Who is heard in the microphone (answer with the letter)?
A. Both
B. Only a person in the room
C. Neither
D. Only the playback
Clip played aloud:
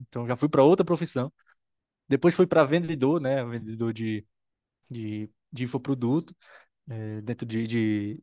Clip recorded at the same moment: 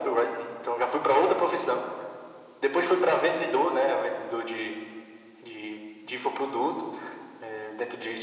D